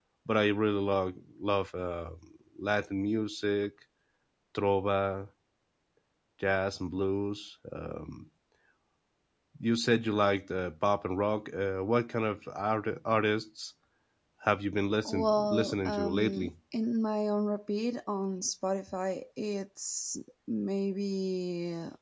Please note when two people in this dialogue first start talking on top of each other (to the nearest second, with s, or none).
15 s